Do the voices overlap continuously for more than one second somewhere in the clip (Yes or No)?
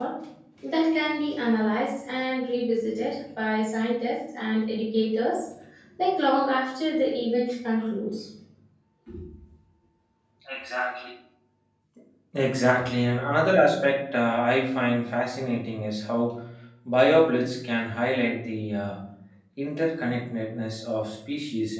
No